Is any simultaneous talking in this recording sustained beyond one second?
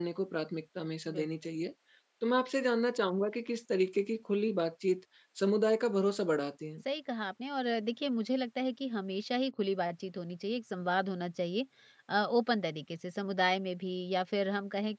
No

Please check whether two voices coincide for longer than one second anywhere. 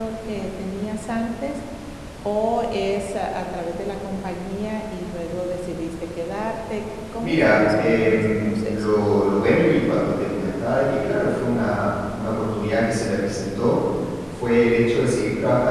Yes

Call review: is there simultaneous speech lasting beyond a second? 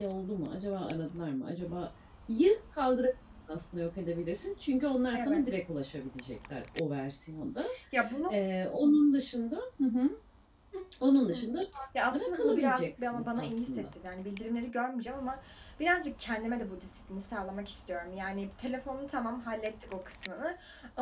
Yes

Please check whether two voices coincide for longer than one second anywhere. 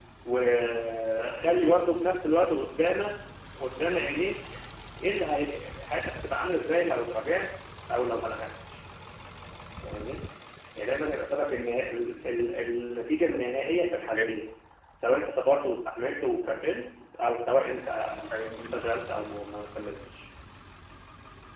No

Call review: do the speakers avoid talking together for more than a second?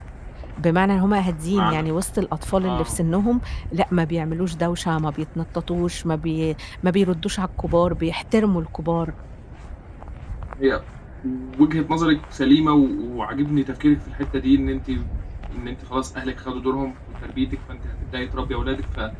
Yes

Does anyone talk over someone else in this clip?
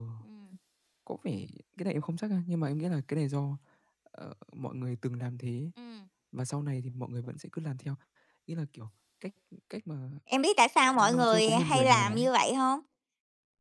Yes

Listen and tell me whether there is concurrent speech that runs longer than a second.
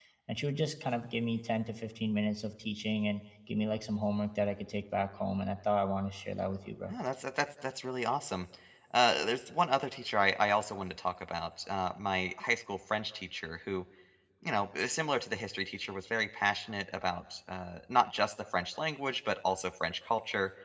No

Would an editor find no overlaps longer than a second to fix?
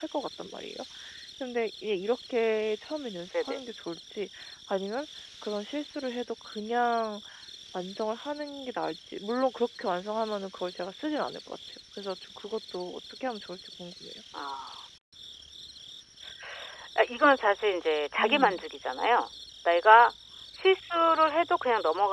Yes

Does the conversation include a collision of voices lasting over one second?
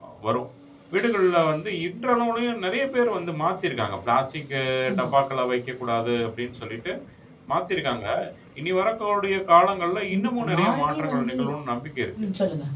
Yes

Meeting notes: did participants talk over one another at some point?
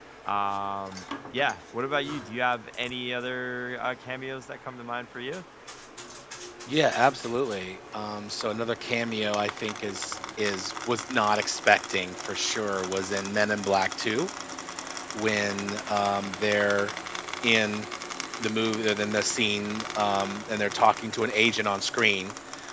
No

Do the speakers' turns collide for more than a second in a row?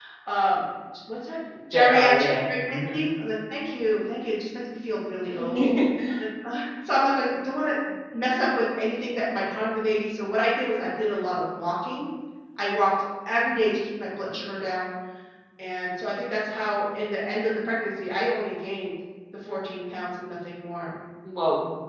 Yes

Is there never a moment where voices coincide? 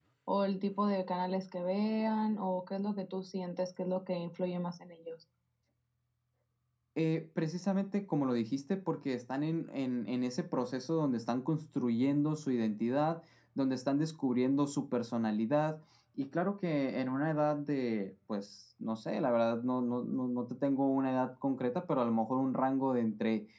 Yes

